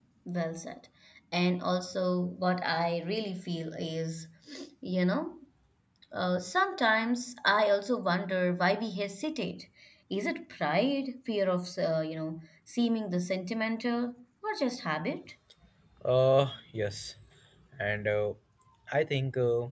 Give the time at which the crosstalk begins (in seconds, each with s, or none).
none